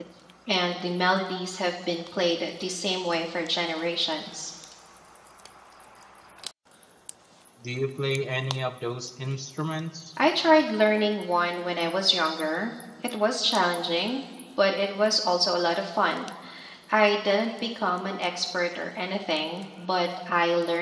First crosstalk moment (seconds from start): none

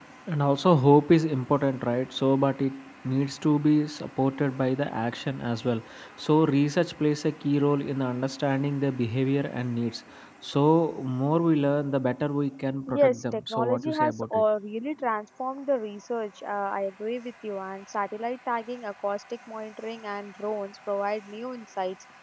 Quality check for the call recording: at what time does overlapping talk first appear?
12.9 s

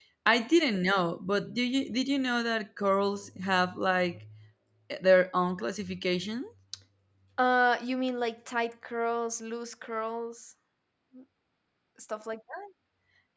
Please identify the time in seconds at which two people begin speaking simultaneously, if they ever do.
none

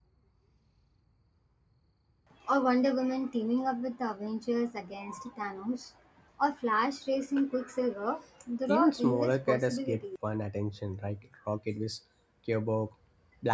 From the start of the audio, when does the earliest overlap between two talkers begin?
8.7 s

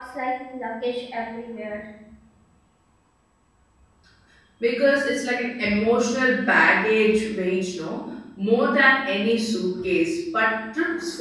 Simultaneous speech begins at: none

